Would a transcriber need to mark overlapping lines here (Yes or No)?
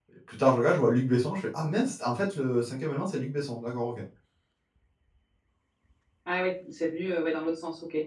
No